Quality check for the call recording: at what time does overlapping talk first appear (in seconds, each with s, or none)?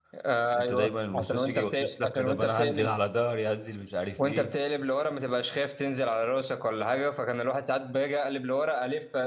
0.6 s